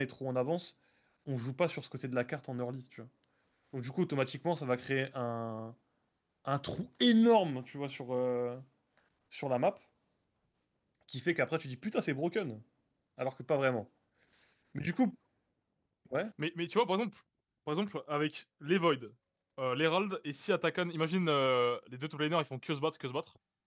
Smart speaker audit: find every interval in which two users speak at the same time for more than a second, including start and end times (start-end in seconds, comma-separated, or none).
none